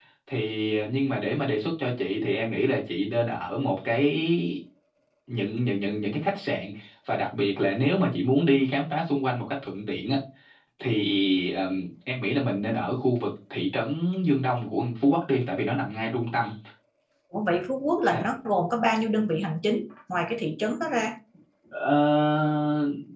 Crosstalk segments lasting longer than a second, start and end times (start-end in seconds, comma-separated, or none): none